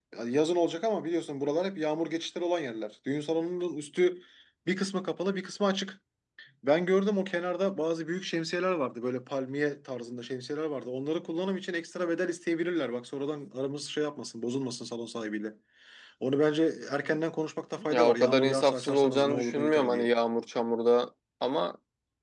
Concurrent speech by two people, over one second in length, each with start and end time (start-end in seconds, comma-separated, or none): 17.9-20.1